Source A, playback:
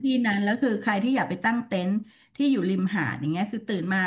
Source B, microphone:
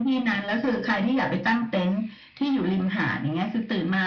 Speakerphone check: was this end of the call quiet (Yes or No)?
Yes